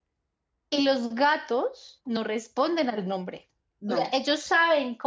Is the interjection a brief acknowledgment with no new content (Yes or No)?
Yes